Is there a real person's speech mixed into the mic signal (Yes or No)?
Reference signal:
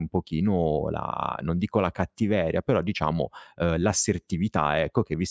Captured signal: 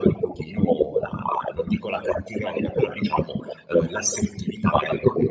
No